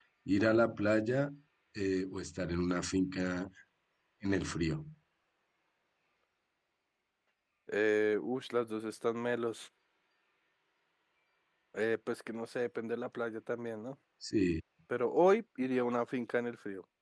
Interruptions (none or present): none